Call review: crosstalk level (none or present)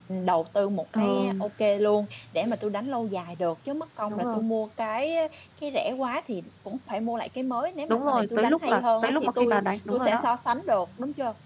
present